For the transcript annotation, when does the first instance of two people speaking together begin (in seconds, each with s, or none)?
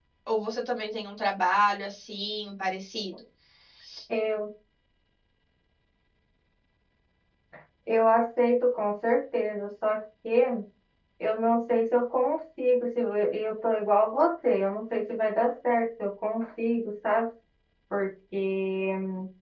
none